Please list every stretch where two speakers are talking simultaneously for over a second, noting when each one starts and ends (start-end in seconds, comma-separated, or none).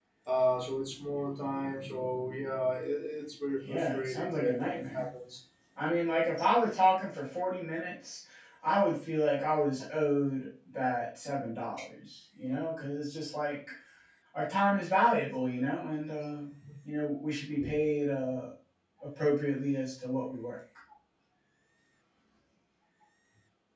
3.7-5.1